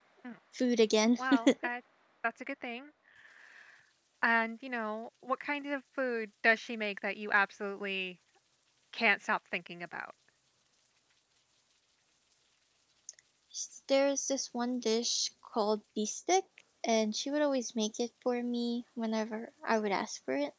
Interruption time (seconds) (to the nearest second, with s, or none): none